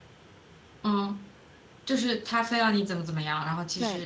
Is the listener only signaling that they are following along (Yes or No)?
No